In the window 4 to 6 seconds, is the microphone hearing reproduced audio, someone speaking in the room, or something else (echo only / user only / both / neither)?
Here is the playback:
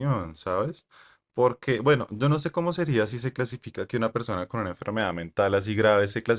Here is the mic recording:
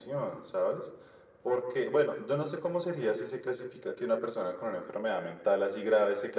echo only